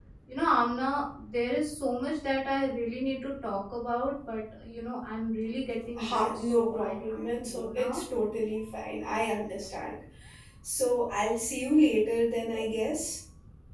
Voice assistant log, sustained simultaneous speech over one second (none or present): present